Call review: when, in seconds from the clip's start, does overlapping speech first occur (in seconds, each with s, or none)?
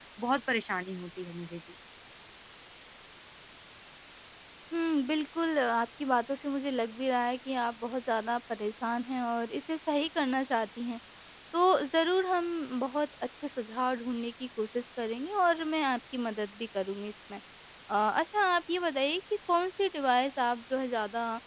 none